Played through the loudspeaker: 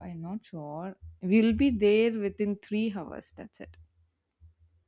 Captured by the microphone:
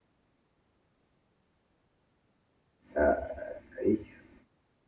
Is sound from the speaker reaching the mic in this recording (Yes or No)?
No